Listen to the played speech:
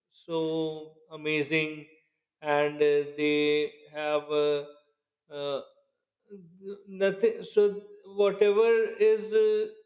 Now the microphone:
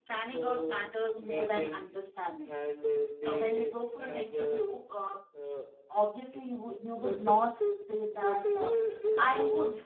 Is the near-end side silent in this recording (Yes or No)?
No